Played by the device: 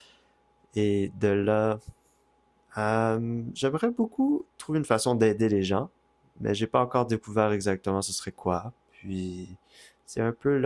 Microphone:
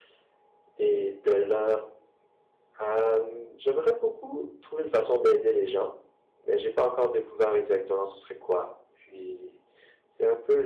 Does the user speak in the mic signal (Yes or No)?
No